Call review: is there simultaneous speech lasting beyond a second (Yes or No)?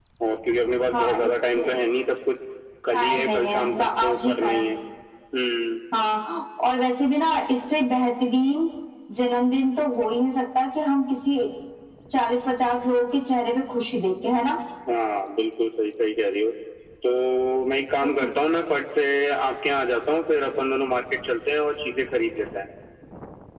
Yes